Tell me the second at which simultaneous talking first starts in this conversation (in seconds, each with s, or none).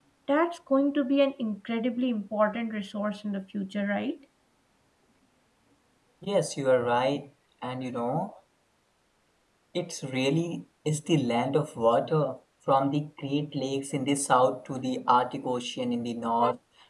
none